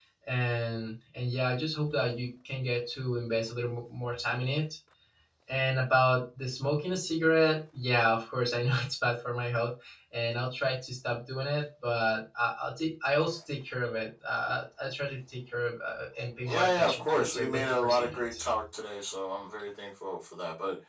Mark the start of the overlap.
16 s

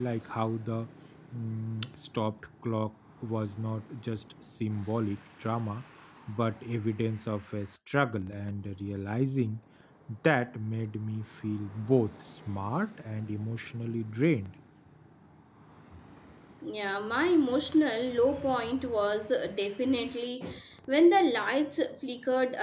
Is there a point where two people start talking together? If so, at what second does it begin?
none

